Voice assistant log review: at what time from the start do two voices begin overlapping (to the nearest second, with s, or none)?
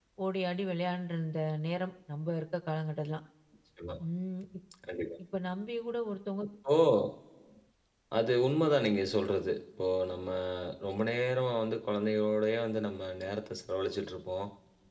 none